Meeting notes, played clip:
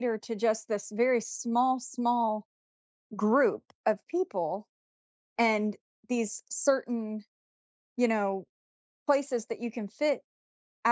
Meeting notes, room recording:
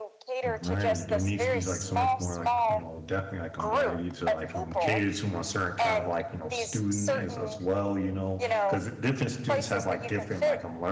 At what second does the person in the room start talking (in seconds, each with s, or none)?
0.4 s